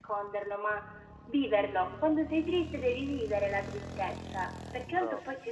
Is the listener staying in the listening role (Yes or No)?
Yes